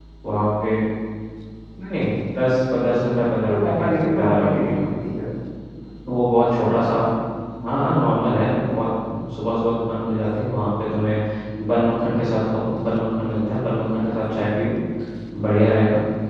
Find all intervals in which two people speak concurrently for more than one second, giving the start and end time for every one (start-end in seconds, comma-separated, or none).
3.4-4.8